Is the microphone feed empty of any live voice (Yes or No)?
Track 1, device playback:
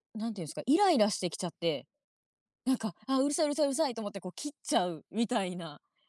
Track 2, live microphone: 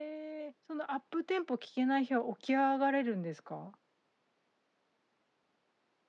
No